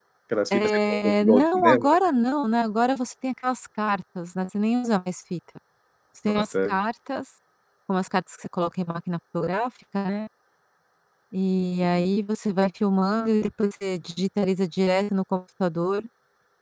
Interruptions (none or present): present